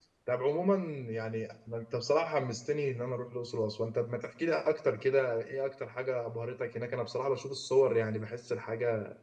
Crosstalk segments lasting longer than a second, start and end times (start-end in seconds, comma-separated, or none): none